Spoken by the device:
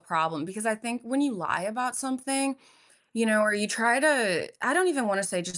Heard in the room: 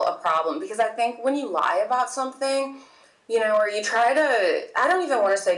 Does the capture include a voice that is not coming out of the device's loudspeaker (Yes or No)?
No